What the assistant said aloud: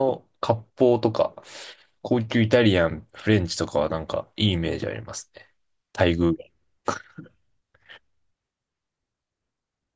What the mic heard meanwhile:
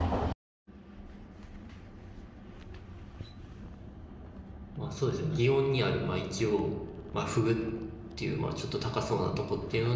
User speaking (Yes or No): Yes